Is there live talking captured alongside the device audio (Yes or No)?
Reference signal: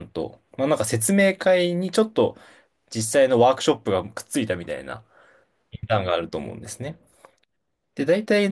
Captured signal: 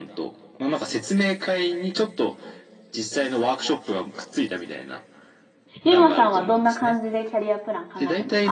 Yes